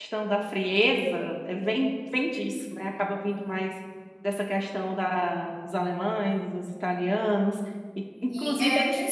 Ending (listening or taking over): taking over